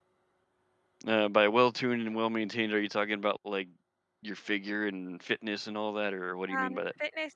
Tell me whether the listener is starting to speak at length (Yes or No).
Yes